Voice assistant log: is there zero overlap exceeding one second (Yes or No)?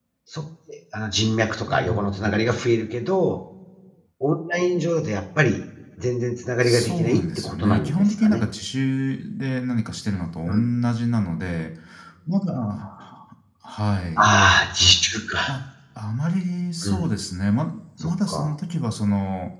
No